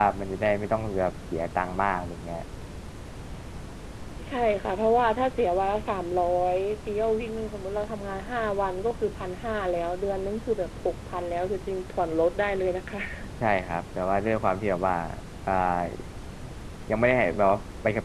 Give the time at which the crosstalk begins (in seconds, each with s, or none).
none